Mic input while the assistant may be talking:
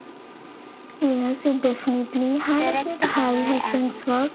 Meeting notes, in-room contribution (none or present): present